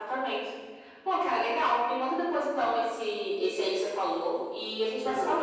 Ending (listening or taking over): listening